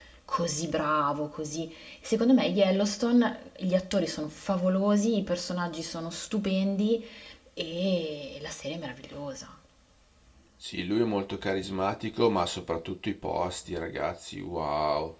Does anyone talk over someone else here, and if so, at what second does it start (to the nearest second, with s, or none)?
none